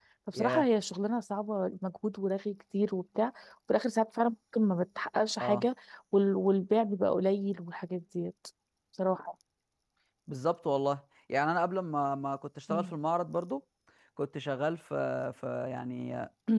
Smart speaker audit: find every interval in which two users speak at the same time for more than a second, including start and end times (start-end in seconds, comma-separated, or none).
none